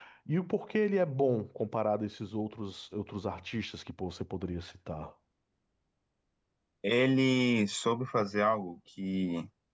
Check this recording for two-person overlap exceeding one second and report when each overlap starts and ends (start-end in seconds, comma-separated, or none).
none